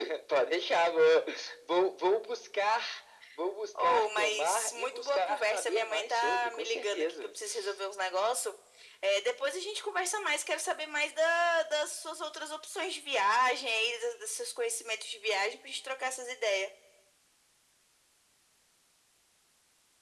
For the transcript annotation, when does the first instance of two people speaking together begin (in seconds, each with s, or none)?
3.8 s